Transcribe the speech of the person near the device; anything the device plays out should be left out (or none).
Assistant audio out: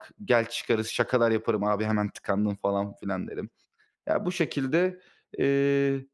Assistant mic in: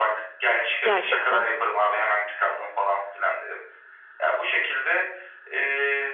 Gerçekten.